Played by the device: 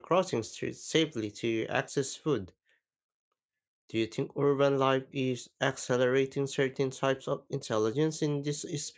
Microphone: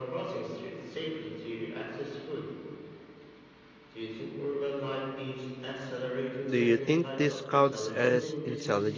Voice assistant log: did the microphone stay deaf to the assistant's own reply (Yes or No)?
No